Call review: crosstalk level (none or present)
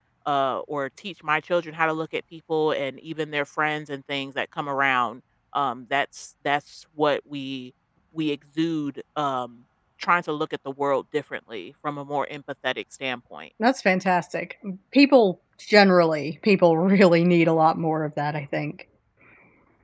none